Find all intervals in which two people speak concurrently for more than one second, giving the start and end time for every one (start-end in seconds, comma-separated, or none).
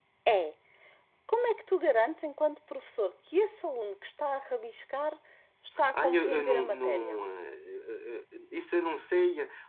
5.9-7.2